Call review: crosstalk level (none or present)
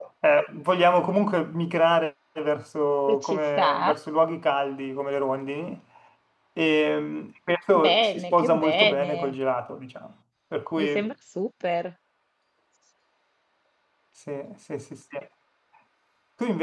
present